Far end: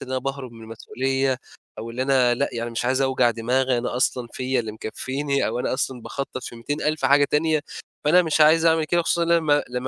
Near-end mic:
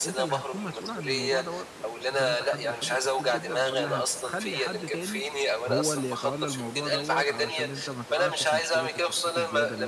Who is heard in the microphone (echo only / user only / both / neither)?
both